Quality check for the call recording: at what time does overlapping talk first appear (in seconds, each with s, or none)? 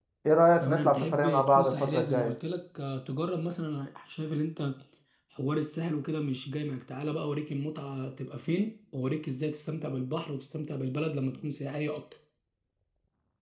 0.6 s